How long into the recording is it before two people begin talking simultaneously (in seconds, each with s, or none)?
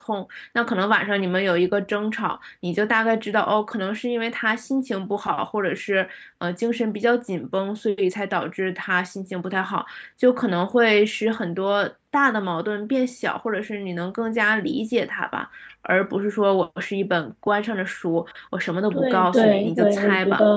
18.9 s